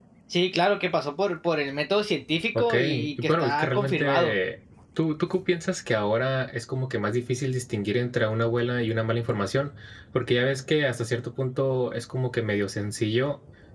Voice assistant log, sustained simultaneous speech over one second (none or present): present